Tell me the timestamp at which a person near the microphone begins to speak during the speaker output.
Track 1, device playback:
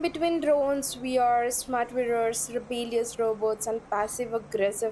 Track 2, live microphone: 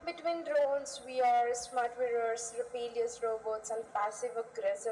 none

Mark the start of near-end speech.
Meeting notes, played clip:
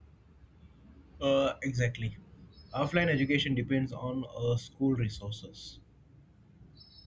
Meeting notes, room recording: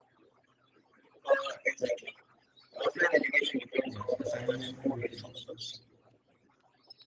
3.9 s

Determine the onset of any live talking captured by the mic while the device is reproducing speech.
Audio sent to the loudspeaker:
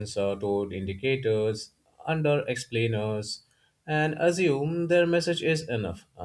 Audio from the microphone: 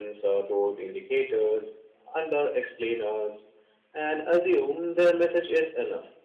none

